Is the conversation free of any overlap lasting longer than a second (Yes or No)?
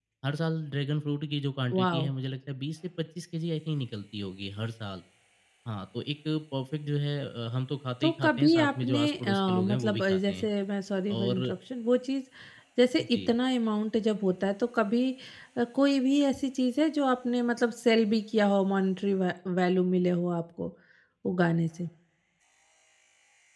No